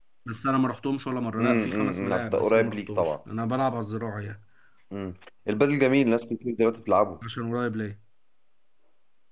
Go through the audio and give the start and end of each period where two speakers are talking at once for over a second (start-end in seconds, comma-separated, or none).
1.4-3.1